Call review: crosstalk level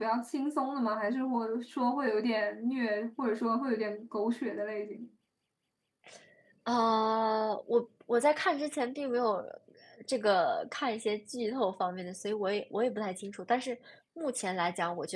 none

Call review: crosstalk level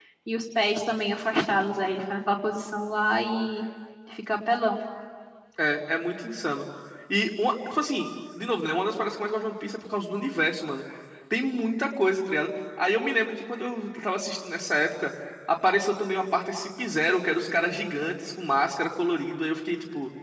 none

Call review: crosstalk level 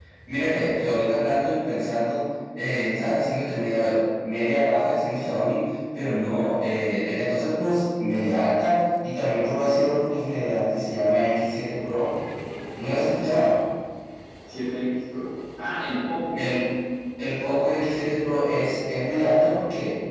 none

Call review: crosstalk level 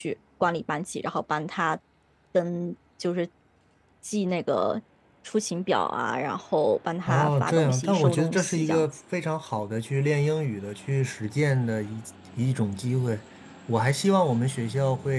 present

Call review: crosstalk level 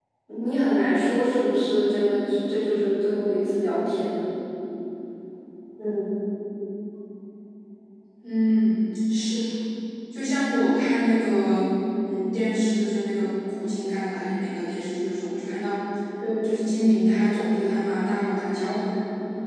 none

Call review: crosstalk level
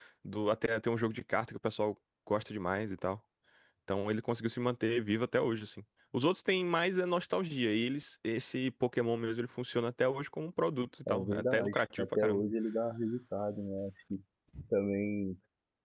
present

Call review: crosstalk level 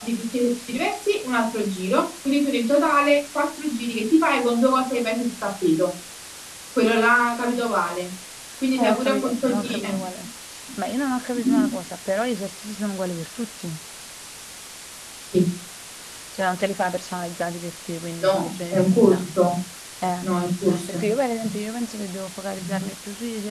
present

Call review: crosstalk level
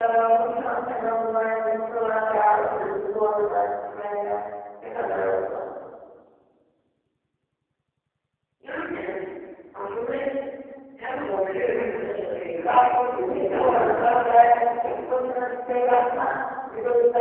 present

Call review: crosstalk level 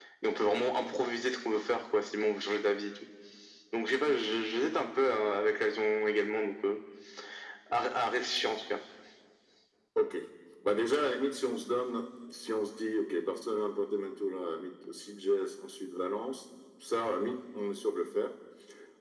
none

